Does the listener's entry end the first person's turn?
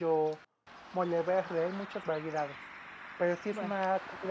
No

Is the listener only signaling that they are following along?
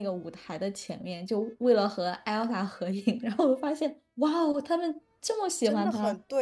No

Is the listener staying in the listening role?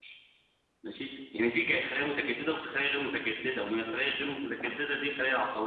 Yes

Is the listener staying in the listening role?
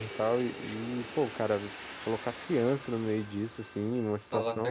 Yes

